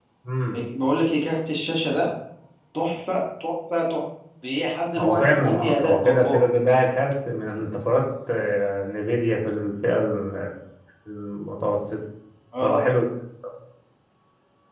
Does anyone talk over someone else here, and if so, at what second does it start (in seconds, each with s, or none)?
5.0 s